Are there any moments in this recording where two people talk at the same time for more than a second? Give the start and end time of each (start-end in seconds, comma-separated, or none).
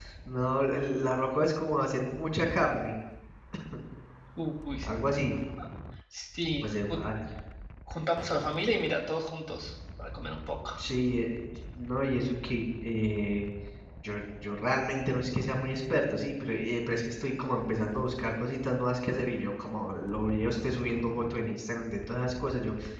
none